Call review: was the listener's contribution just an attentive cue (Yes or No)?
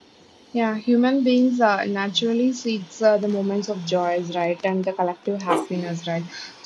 Yes